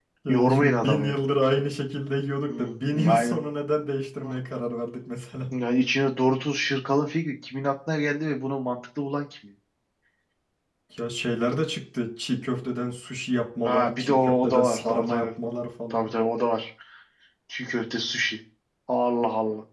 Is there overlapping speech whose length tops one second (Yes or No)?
Yes